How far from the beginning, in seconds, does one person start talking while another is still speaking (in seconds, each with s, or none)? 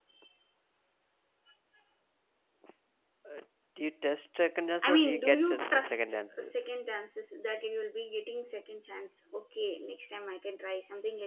4.8 s